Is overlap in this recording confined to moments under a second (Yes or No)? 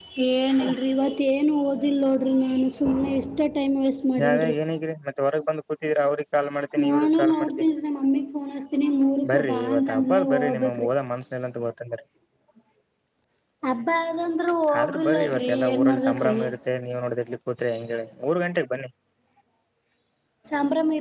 No